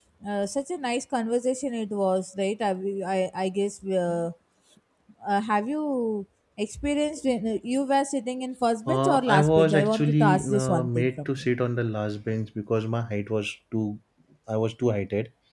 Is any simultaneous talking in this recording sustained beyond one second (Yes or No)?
Yes